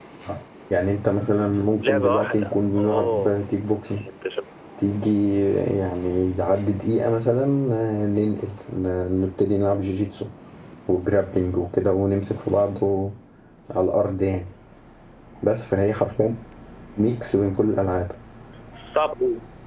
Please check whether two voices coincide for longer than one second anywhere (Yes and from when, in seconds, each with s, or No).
Yes, from 1.8 s